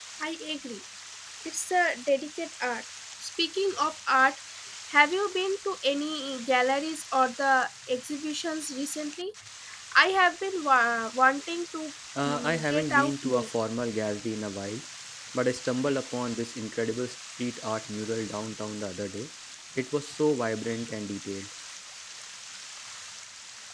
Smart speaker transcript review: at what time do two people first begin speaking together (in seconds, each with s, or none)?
12.2 s